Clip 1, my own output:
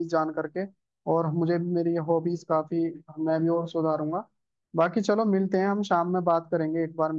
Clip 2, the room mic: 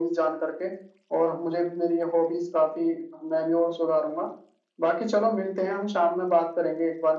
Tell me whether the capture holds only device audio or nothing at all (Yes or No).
Yes